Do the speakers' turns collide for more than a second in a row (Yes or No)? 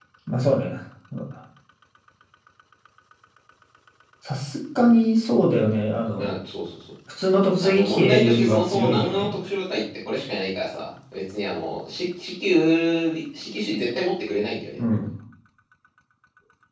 Yes